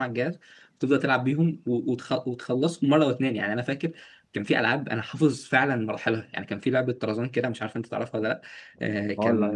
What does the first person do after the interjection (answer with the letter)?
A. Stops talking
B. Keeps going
A